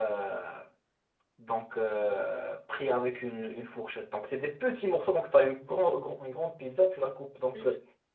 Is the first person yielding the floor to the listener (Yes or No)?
No